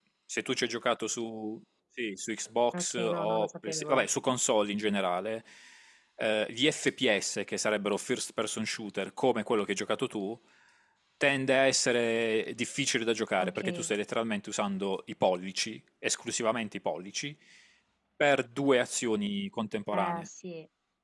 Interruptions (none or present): present